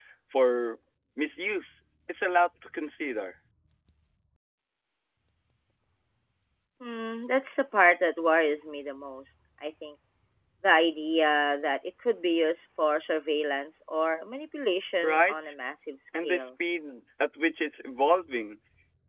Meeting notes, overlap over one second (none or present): none